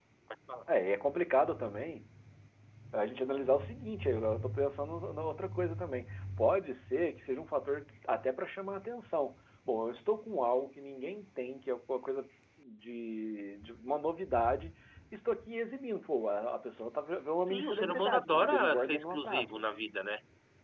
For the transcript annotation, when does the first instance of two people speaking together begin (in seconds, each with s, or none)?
17.5 s